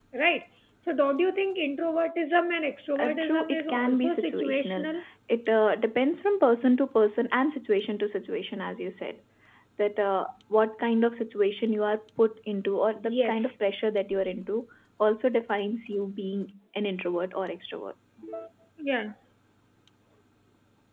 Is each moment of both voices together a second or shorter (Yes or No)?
No